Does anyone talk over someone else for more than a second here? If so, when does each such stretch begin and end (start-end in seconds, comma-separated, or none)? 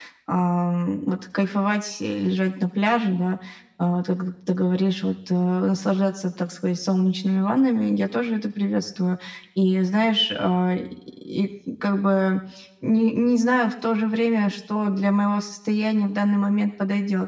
none